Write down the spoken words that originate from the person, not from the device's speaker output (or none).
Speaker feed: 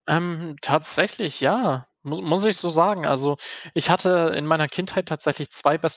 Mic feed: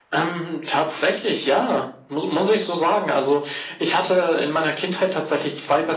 none